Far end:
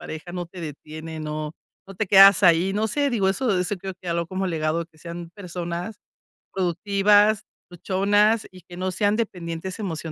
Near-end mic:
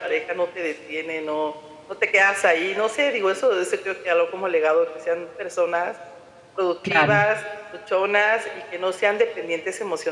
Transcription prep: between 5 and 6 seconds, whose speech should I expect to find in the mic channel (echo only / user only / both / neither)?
echo only